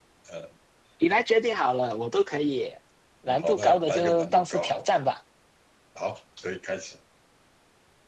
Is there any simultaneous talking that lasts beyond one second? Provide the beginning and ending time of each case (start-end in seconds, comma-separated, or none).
3.3-5.0